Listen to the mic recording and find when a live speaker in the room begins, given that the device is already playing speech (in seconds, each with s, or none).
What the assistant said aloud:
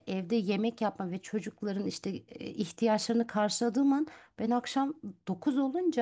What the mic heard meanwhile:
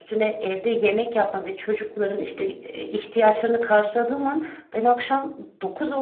none